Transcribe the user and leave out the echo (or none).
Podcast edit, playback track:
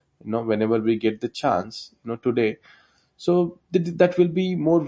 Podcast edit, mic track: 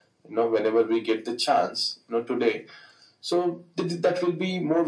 none